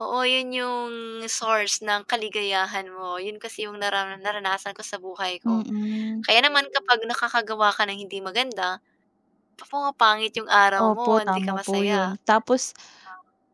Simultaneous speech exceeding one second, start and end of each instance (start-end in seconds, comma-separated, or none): 10.8-12.1